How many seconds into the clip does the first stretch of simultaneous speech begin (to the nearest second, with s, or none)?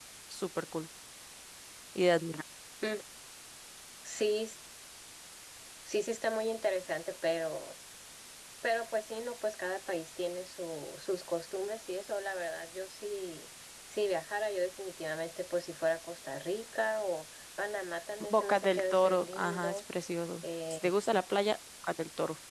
18 s